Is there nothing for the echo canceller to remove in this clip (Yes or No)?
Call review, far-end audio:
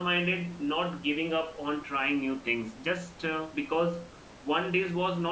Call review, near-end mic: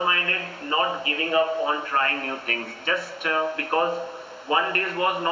No